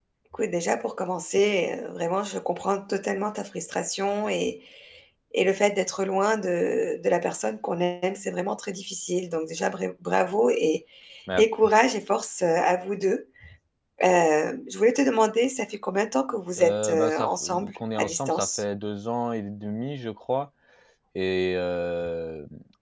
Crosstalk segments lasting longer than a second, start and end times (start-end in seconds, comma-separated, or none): 16.6-18.6